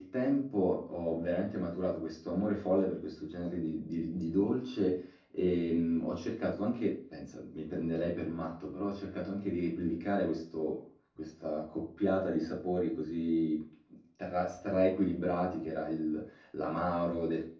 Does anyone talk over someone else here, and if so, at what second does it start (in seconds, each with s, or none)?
none